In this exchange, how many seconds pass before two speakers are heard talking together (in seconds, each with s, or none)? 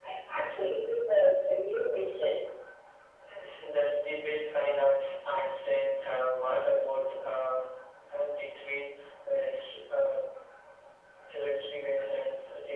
none